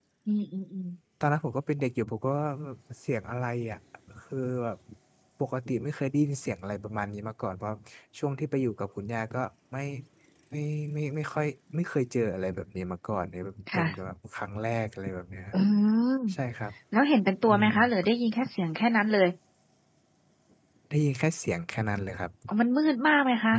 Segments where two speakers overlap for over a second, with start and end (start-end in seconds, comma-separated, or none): none